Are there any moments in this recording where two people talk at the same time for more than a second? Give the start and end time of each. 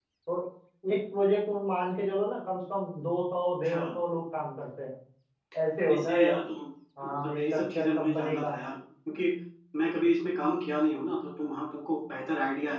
7.1-8.5

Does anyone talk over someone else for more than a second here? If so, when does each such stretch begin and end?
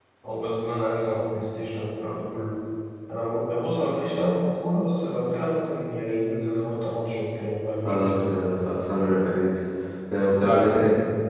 none

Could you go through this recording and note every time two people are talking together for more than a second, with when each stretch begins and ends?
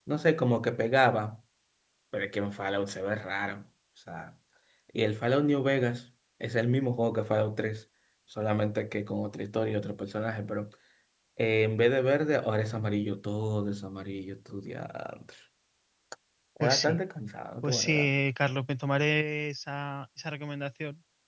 none

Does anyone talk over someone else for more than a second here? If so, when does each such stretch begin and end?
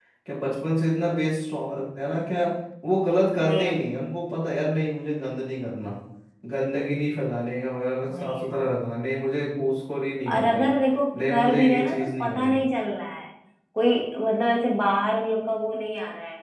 11.2-12.6

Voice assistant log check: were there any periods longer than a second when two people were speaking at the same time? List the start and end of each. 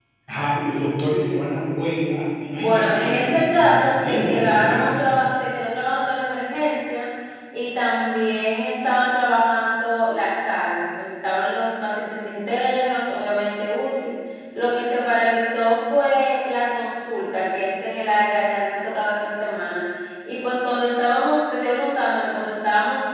2.6-5.0

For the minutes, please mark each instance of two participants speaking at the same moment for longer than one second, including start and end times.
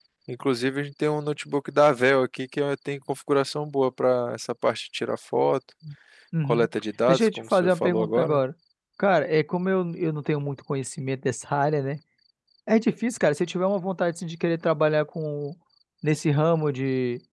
7.1-8.4

